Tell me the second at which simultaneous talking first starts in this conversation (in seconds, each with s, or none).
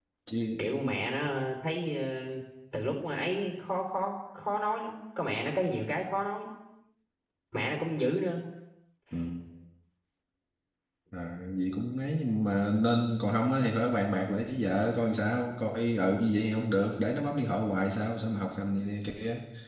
none